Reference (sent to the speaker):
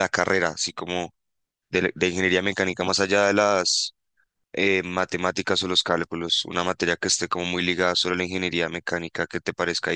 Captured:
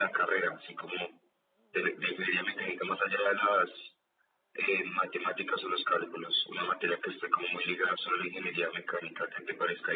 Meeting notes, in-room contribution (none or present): none